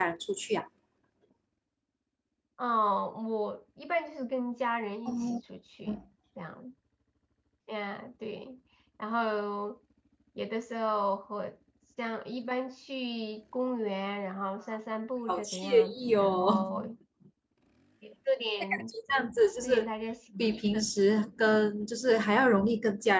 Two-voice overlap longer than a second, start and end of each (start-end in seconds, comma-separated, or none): 15.3-16.7